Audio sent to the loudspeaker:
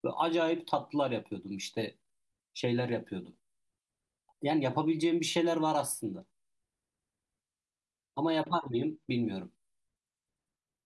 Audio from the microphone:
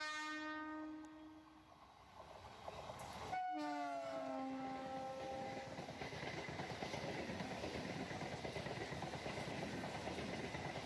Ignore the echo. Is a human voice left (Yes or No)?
No